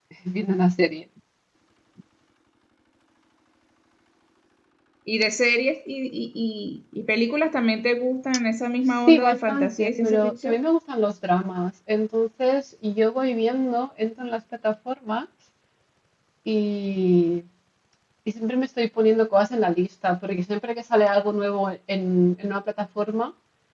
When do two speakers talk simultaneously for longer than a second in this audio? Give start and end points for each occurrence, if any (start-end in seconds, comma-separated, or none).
9.1-10.6